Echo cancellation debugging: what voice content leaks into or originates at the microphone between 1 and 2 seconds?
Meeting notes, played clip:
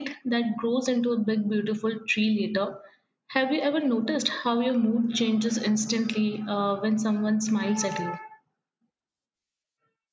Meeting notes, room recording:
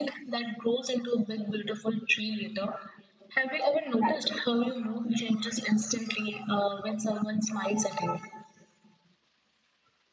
echo only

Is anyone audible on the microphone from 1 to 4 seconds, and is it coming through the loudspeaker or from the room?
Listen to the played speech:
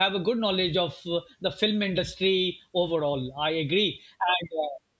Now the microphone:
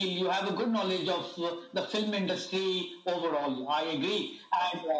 echo only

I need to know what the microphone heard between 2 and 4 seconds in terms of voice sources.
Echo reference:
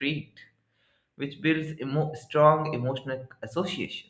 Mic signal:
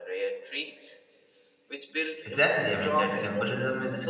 both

